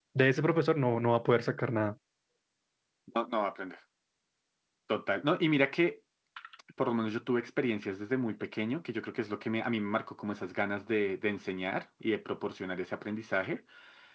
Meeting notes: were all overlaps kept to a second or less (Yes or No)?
Yes